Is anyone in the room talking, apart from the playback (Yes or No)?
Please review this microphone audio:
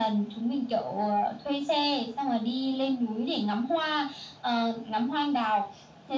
No